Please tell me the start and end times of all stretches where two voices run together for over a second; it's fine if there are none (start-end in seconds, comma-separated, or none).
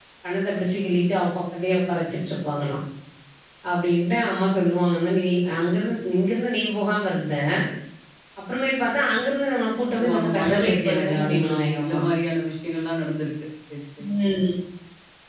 10.0-12.0